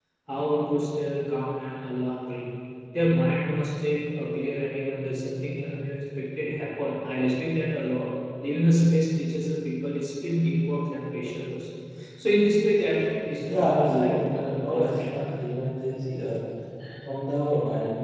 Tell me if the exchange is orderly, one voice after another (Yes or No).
No